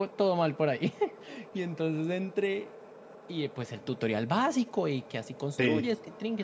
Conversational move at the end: listening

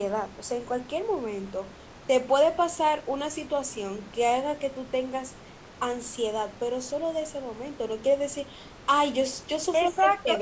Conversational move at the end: taking over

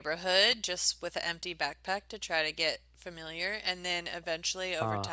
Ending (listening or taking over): listening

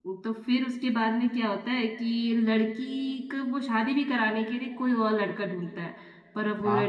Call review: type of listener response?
listening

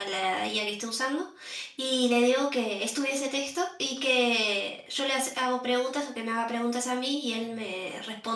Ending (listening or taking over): listening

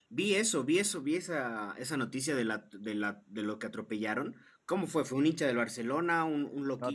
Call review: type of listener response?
taking over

